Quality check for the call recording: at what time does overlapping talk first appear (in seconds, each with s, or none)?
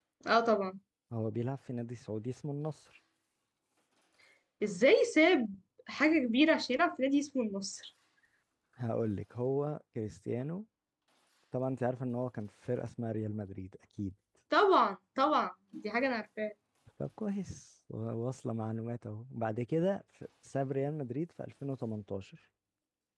none